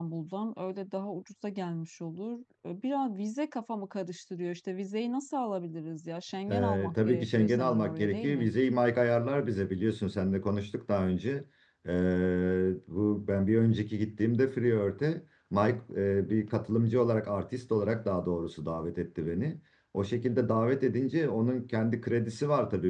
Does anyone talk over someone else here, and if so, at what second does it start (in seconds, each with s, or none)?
6.5 s